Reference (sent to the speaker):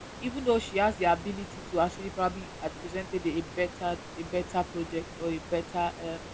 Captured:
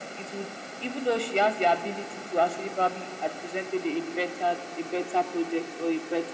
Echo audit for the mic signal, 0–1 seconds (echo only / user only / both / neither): echo only